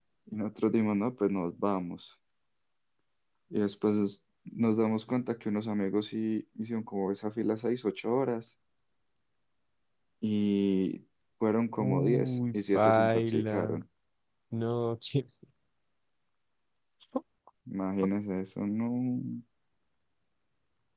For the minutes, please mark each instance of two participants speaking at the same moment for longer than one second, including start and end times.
11.8-13.8

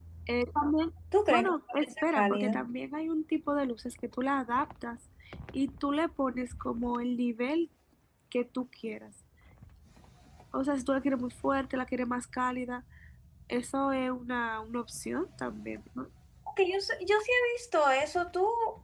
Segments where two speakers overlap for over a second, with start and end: 1.3-2.5

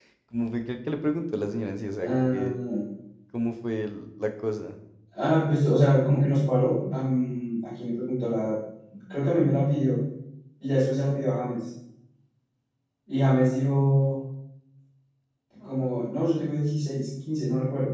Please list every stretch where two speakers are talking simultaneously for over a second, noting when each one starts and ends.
none

